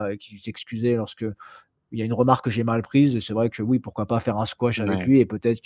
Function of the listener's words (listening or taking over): listening